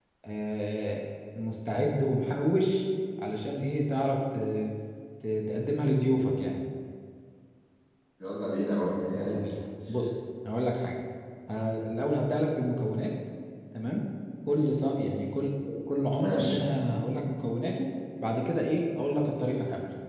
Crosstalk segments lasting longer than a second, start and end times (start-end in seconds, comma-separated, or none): none